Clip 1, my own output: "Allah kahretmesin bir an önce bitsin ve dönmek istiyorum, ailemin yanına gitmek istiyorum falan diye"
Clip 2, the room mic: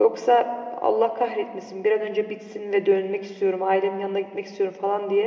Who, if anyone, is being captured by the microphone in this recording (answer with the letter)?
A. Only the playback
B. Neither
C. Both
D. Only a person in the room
A